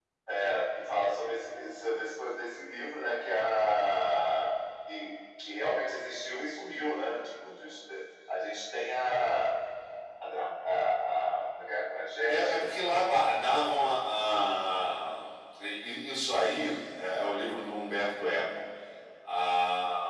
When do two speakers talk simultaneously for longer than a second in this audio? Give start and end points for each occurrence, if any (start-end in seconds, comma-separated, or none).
none